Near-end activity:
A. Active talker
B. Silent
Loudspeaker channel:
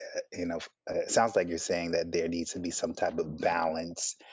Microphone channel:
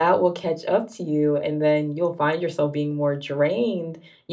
A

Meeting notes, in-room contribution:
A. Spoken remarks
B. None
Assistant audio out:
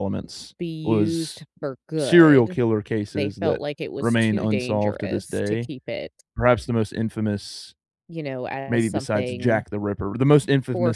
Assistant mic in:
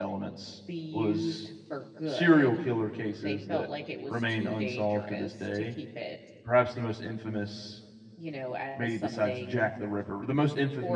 B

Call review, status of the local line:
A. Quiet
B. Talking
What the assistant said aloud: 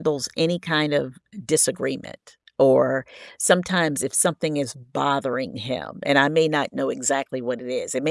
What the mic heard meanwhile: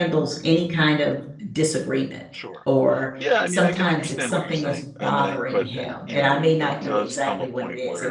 B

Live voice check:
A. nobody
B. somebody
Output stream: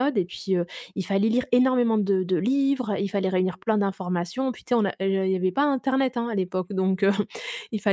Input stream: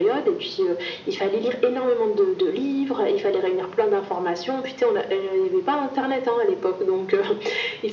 A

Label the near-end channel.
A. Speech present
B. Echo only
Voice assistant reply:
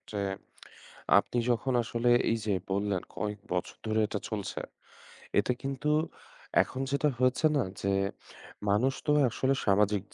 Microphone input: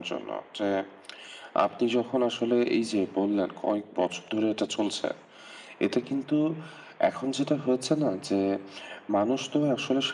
B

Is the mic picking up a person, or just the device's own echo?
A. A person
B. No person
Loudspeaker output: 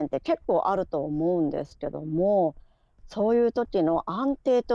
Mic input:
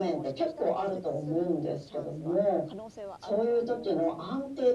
A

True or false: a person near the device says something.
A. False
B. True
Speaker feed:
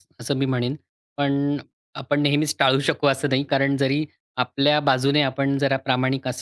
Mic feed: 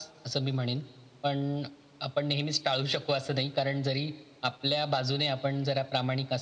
A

